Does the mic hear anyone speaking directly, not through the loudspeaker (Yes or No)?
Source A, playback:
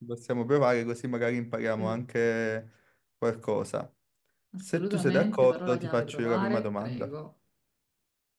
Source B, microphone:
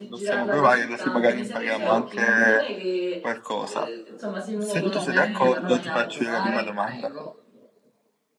Yes